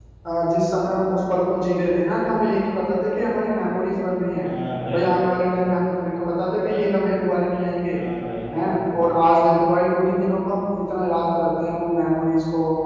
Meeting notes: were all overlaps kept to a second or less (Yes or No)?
Yes